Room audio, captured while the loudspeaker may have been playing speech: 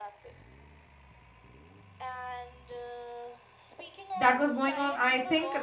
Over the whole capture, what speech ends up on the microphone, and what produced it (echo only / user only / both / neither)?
both